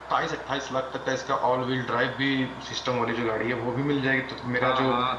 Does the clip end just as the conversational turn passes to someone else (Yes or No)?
Yes